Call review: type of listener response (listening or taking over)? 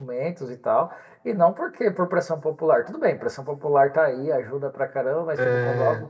listening